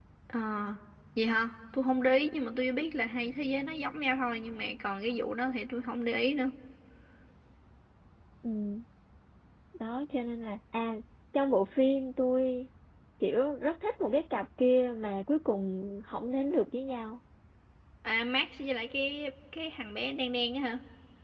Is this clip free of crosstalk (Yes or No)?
Yes